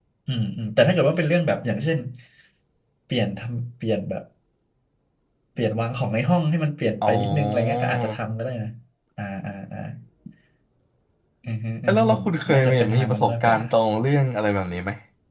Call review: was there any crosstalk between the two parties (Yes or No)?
Yes